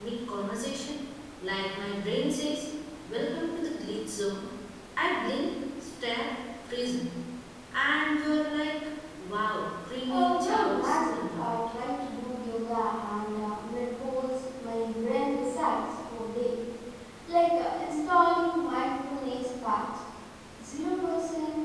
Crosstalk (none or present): present